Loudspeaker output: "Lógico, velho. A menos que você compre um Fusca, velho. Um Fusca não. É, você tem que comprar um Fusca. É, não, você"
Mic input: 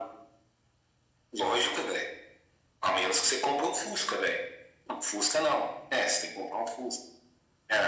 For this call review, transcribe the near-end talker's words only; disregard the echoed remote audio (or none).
none